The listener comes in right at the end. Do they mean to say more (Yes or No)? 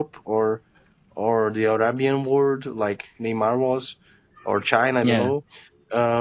No